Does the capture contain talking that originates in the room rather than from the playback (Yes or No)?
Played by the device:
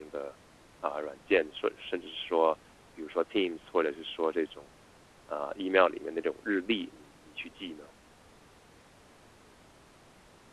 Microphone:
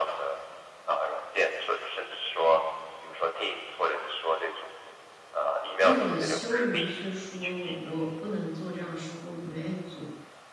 Yes